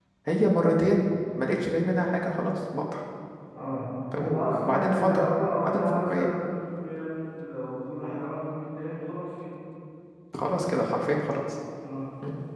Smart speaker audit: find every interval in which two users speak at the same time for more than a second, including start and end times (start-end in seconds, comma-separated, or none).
4.1-6.3